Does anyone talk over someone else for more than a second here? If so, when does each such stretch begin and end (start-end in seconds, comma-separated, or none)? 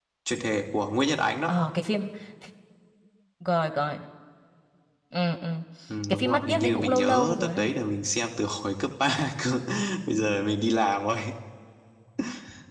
6.1-7.7